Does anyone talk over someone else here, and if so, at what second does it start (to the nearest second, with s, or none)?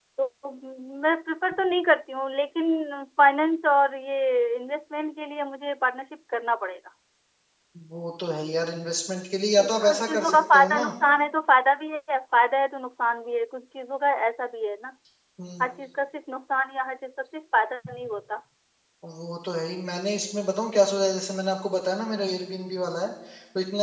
10 s